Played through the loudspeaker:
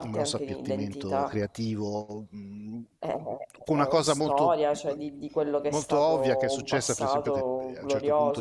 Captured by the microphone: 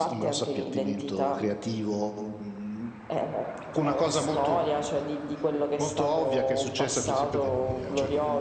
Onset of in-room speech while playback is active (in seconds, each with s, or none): none